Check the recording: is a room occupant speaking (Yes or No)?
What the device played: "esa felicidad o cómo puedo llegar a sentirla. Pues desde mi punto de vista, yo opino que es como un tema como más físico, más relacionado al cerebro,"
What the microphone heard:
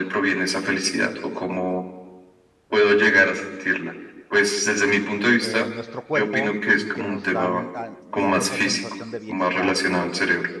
Yes